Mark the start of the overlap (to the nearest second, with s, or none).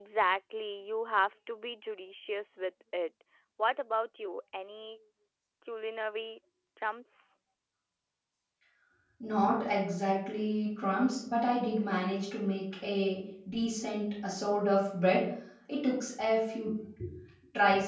none